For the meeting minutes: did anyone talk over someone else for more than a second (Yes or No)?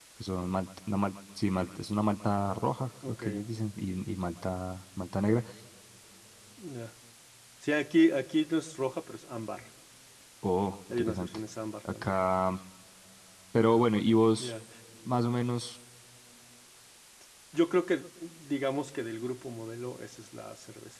No